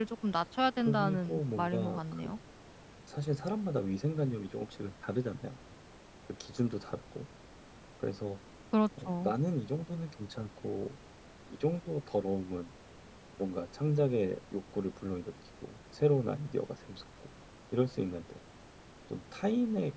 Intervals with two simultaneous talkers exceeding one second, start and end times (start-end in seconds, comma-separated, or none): 0.8-2.3